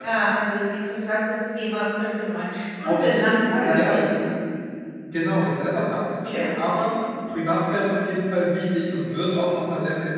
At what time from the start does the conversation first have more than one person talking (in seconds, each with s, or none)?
2.8 s